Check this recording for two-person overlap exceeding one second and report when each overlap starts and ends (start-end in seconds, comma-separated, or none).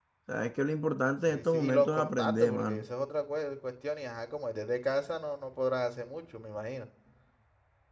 1.3-2.9